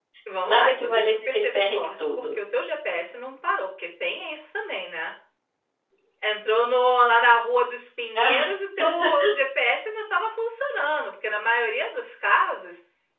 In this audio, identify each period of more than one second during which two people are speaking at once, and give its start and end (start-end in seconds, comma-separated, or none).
0.5-2.2